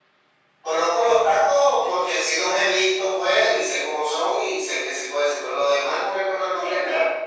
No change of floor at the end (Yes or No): No